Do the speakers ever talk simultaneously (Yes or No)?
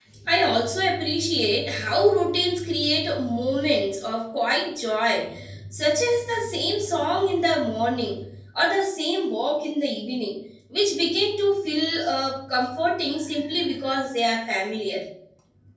No